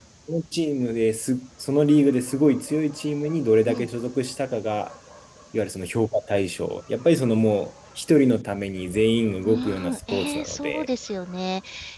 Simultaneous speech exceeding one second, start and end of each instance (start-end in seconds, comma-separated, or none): 9.4-10.9